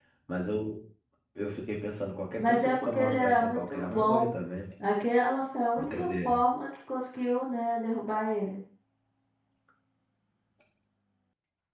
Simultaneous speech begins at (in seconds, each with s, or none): 2.4 s